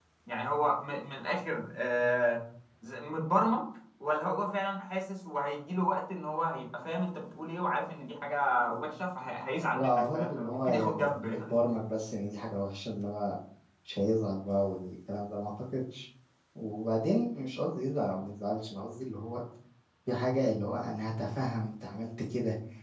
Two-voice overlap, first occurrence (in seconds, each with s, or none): 9.7 s